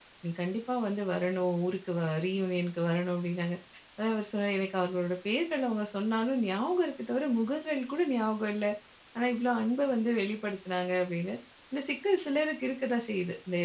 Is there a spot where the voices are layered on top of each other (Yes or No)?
No